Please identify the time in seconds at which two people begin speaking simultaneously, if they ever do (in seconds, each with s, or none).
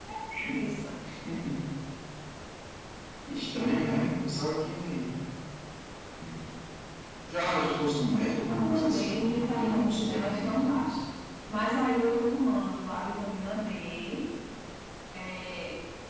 8.5 s